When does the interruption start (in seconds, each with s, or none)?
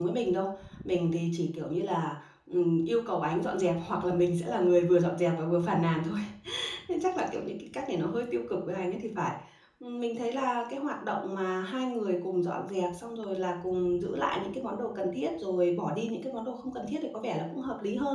none